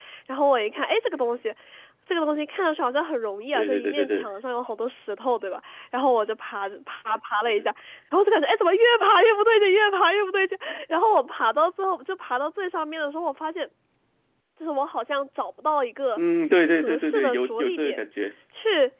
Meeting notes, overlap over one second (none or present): present